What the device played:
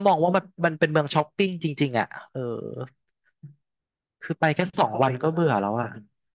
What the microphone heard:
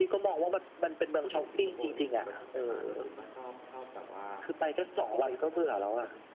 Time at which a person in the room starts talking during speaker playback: 1.2 s

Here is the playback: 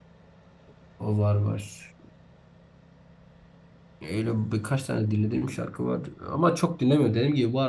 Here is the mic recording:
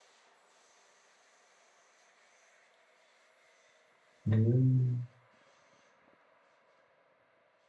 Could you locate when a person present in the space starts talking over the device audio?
4.2 s

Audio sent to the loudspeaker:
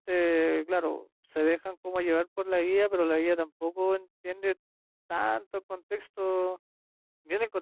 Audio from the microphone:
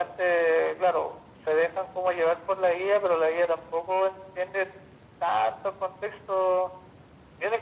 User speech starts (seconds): none

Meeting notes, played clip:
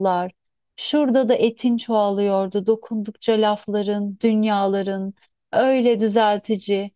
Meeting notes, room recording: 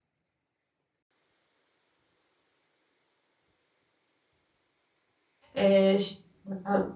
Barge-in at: 5.6 s

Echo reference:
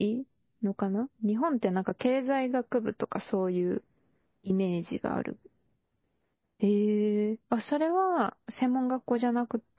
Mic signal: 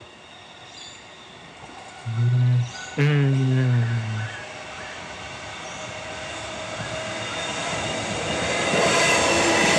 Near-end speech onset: 2.0 s

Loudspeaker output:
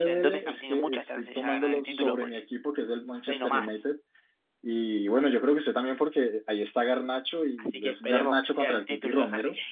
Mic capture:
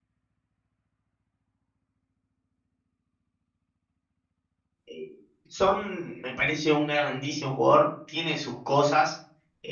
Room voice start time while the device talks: 4.8 s

